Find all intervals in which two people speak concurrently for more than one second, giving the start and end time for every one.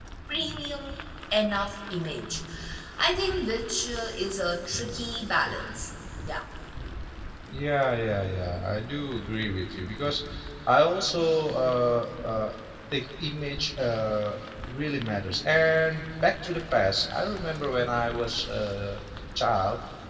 none

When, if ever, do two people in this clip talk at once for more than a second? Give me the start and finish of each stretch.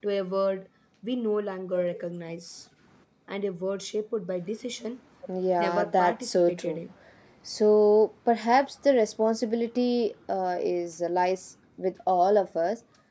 5.6-6.8

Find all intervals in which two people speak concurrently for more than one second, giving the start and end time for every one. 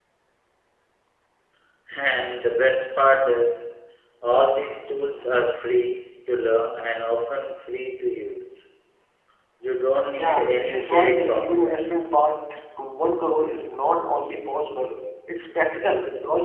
10.1-11.8

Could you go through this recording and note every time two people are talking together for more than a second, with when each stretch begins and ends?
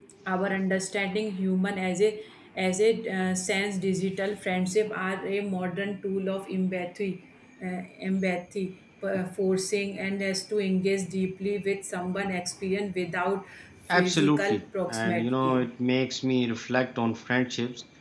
13.9-15.6

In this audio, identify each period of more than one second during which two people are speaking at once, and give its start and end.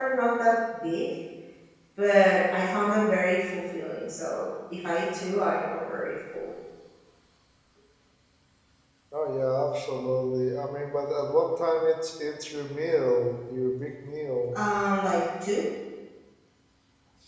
none

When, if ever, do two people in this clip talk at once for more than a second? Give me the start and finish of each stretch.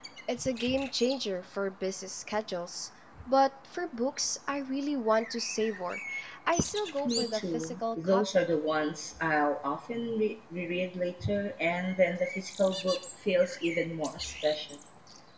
7.0-8.5

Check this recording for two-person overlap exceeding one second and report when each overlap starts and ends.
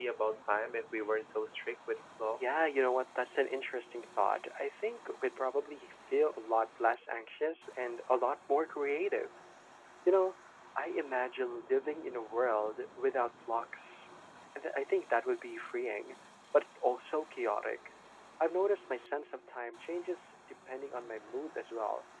none

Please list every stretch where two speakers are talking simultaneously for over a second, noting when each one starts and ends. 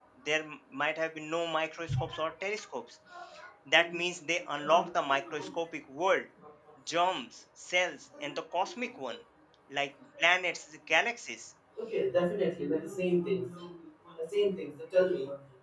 none

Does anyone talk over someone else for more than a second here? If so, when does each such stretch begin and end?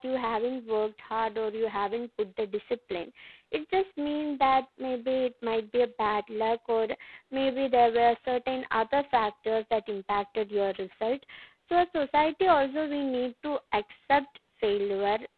none

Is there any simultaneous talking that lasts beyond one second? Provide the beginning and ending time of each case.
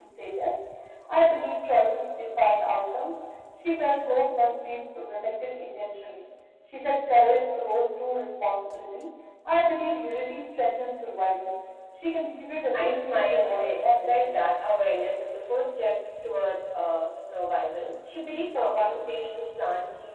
12.7-14.4

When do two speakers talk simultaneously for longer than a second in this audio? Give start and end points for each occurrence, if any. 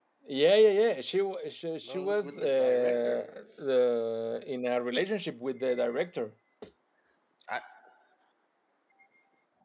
1.8-3.4

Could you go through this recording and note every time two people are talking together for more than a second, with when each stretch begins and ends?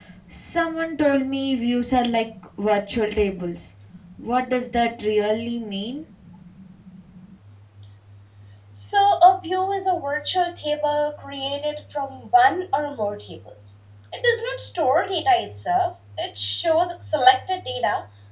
none

